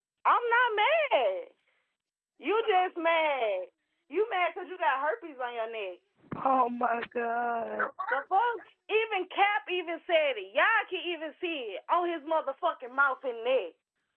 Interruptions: none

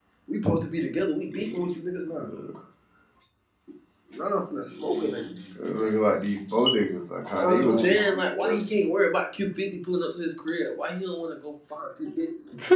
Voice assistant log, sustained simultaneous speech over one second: present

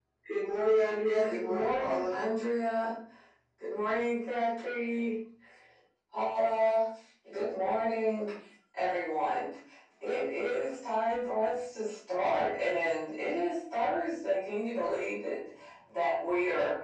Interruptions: present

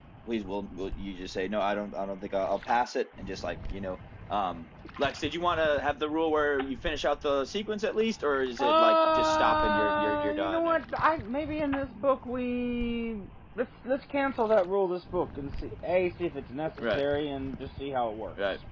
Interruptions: present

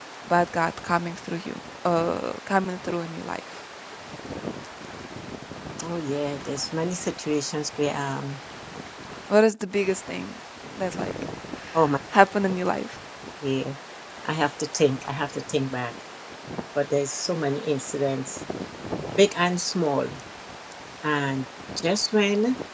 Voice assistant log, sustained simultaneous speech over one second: none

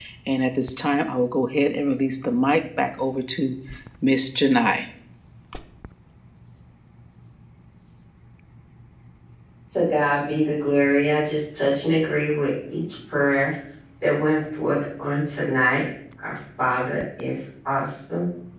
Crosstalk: none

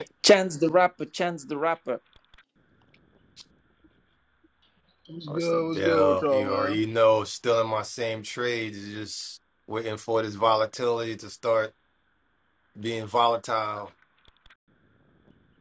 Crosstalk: present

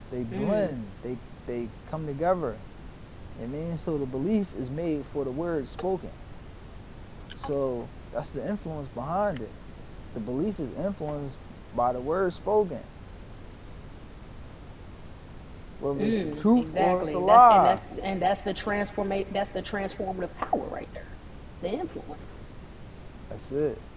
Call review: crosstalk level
present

